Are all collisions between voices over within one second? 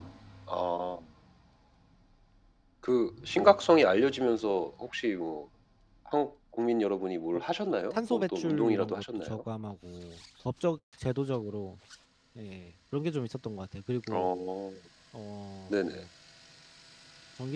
No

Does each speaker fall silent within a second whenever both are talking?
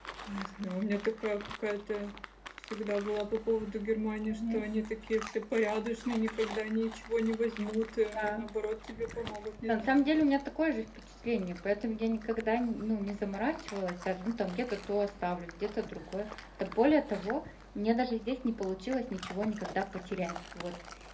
Yes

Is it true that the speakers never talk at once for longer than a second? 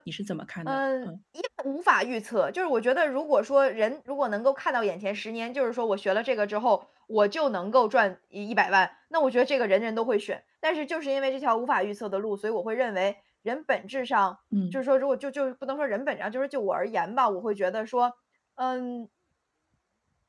Yes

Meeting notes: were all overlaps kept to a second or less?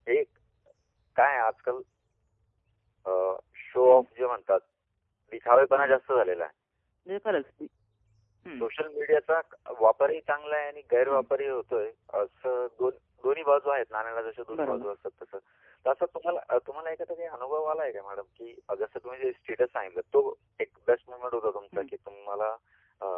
Yes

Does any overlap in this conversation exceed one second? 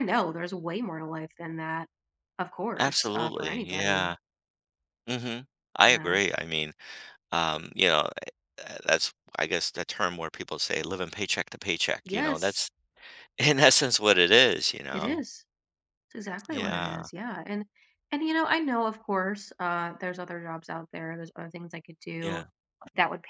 Yes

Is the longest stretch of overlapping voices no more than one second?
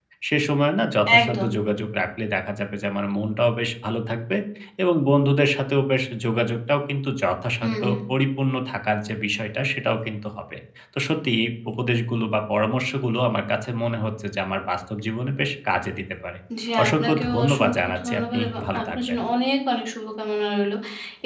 No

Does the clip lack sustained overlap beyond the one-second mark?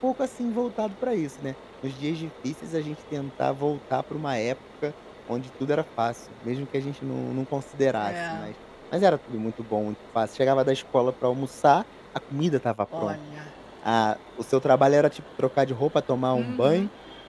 Yes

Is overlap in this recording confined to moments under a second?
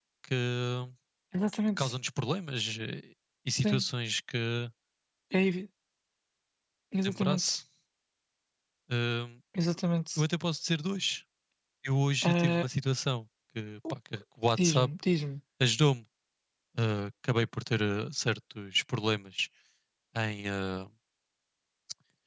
Yes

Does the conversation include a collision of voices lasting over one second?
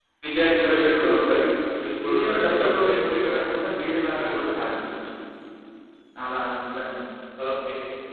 Yes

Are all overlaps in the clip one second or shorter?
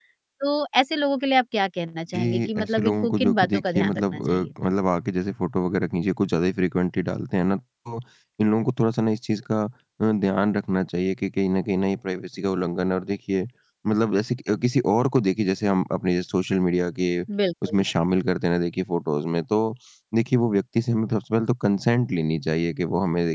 No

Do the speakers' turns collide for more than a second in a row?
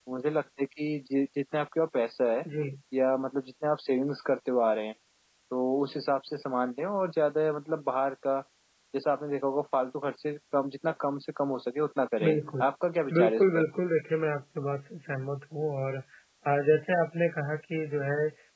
No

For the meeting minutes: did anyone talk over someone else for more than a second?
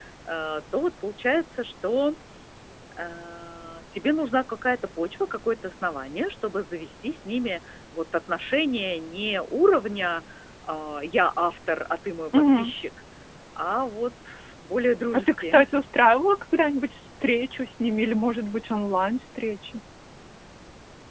No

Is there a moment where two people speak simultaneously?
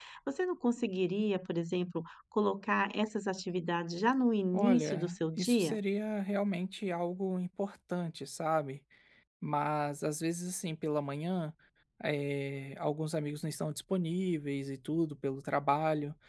Yes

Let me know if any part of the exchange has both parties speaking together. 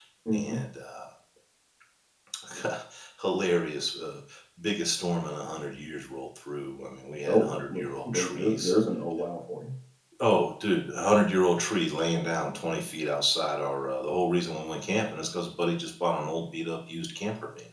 Yes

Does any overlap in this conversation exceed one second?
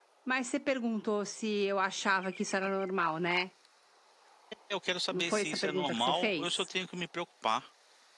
Yes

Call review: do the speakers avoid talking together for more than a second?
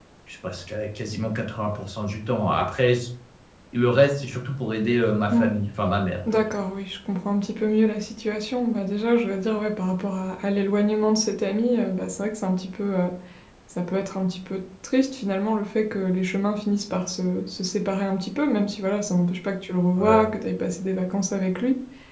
Yes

